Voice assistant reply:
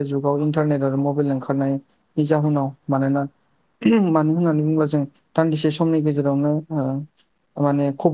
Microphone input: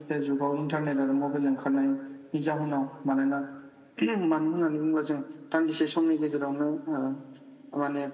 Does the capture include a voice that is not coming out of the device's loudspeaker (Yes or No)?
No